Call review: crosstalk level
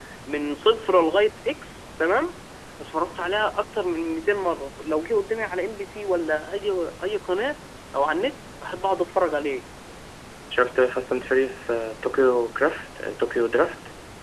none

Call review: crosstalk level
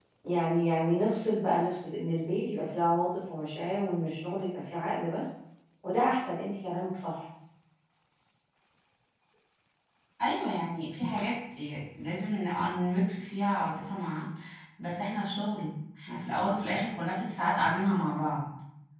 none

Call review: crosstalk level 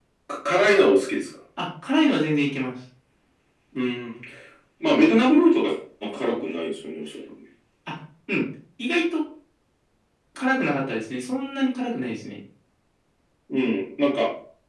none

